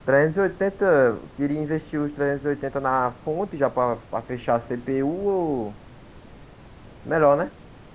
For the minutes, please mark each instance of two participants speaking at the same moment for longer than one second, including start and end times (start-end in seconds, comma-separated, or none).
none